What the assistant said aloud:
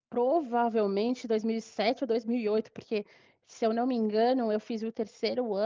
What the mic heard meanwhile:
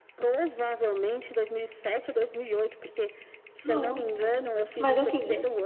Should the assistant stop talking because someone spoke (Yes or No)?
Yes